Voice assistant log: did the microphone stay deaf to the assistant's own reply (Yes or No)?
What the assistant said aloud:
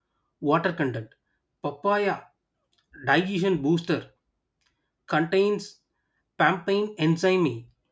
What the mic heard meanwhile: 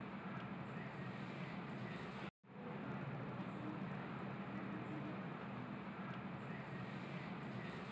Yes